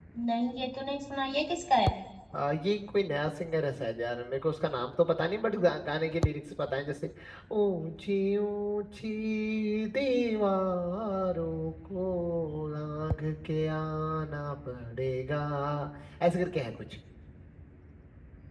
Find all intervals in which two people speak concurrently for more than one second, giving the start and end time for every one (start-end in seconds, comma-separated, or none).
none